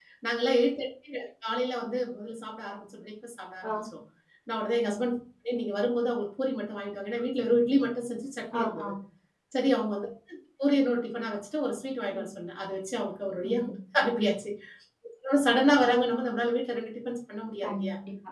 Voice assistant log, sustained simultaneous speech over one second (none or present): none